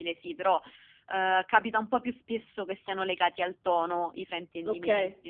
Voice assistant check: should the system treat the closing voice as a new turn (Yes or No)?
Yes